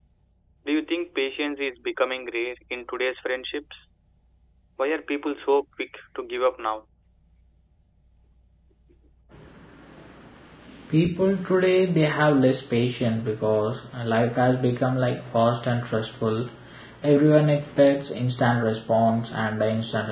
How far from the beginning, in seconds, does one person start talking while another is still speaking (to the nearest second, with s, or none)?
none